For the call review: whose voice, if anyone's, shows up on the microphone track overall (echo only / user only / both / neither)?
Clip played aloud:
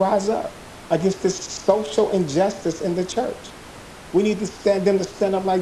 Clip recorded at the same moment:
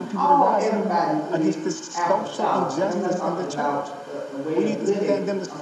both